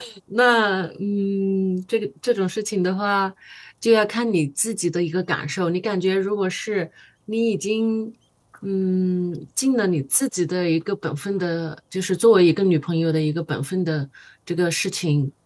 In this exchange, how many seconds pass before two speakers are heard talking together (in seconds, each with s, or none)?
none